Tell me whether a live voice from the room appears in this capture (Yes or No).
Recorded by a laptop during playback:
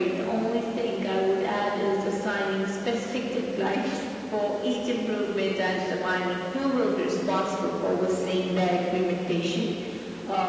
No